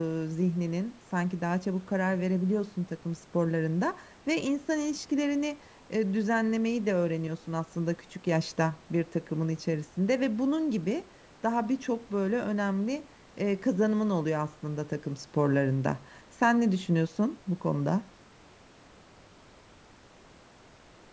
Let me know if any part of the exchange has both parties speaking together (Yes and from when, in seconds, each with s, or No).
No